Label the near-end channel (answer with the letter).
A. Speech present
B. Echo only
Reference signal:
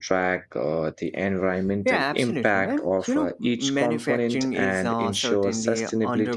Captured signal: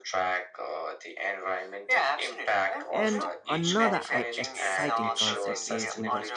A